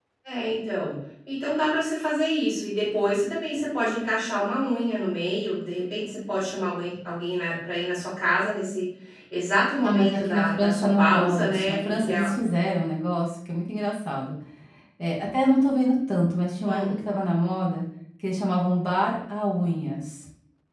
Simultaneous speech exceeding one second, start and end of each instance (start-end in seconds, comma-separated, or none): 9.8-12.3